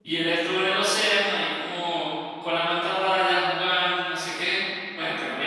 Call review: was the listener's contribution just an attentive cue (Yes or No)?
Yes